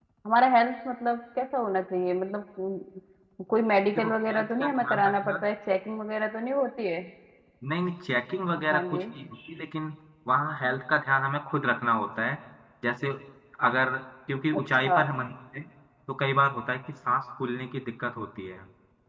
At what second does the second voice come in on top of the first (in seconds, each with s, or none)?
4.0 s